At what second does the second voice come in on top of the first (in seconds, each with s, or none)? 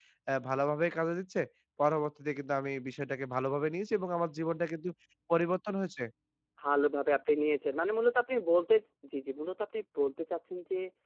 none